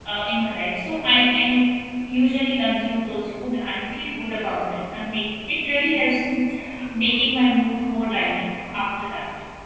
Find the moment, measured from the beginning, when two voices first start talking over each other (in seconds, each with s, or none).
none